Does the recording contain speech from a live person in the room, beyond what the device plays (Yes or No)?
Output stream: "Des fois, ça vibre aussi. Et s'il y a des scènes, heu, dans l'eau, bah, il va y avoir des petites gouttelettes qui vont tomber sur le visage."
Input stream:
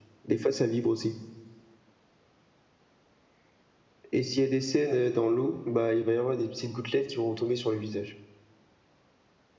No